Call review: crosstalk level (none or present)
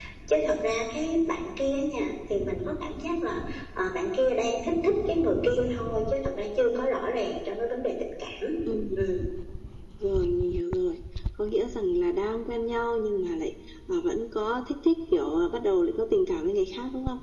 none